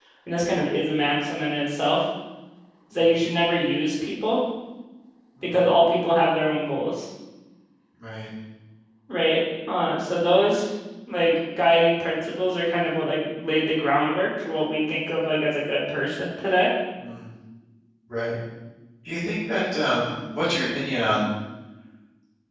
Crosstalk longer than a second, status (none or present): none